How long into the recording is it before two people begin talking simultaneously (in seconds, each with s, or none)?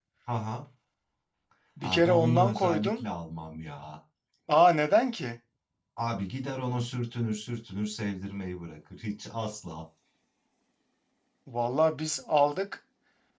1.8 s